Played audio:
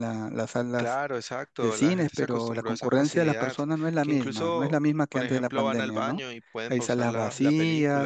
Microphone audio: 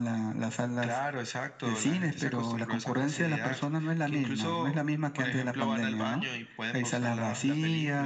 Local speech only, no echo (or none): none